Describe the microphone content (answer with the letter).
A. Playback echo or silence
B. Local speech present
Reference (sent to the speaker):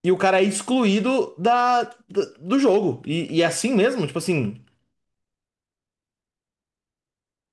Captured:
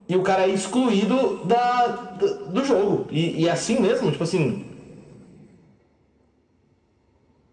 A